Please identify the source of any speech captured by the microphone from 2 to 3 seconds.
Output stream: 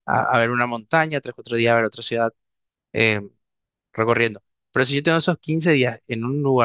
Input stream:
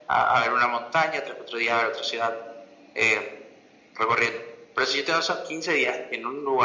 echo only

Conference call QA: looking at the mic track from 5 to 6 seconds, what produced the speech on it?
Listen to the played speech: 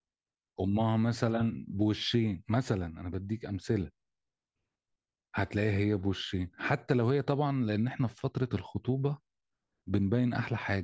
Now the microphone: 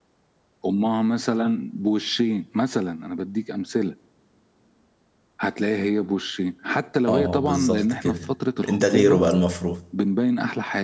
echo only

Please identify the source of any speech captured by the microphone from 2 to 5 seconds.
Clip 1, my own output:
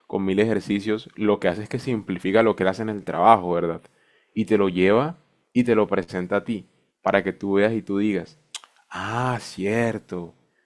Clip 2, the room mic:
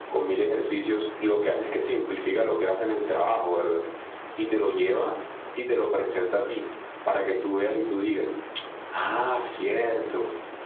echo only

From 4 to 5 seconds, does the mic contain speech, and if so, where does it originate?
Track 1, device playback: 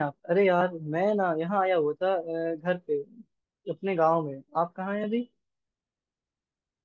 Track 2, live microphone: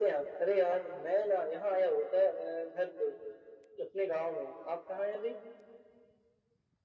echo only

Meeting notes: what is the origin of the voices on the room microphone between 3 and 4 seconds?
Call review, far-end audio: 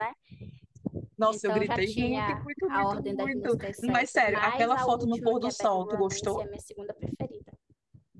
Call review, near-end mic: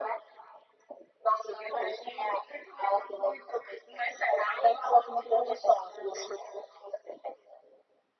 echo only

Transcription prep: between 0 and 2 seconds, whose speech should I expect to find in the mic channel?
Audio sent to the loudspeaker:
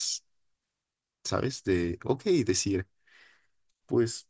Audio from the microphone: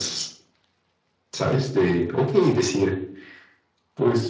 echo only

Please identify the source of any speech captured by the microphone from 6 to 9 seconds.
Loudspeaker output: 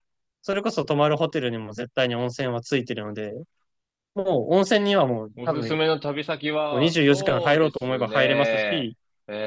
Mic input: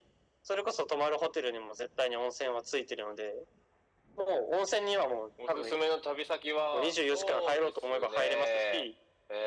echo only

